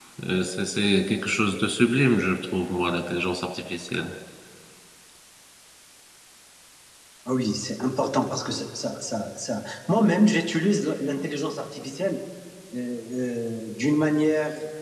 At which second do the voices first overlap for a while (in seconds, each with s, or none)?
none